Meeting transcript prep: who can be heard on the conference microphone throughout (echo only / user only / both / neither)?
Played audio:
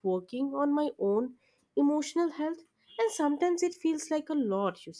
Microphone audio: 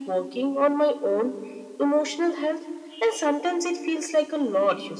echo only